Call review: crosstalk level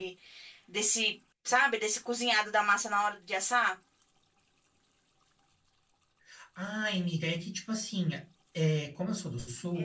none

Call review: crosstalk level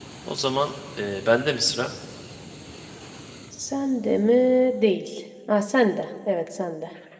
none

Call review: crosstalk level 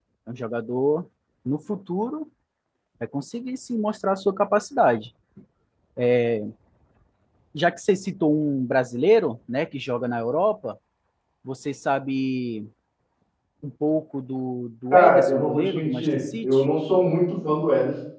present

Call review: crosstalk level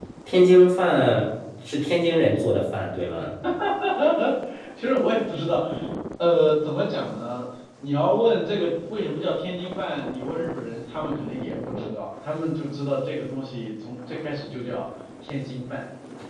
none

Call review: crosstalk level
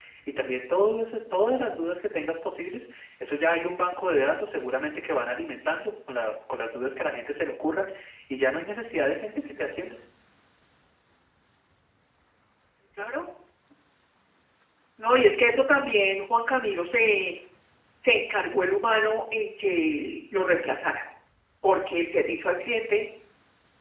none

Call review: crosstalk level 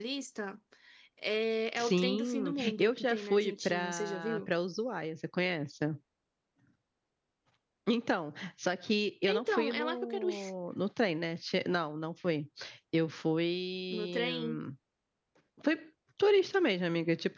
present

